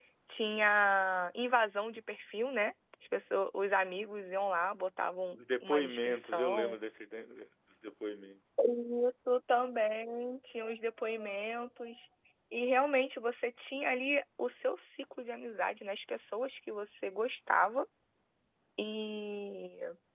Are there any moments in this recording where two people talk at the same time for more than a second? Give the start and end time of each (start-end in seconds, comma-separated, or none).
5.3-6.8